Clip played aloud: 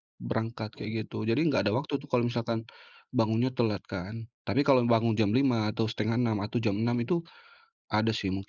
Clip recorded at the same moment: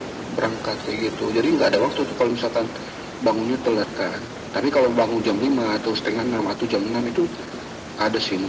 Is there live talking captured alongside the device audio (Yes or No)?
No